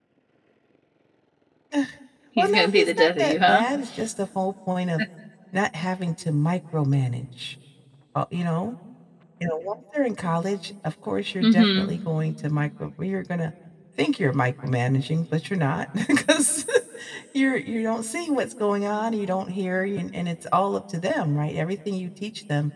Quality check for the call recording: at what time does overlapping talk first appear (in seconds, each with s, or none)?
2.4 s